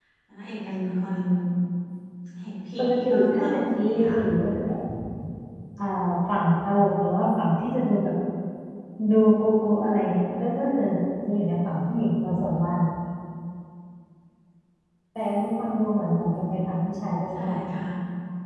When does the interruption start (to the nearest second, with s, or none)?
3 s